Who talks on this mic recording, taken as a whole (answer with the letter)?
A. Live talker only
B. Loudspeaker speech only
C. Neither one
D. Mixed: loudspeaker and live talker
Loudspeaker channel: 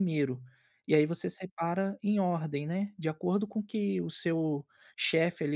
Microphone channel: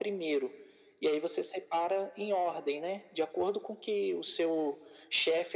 B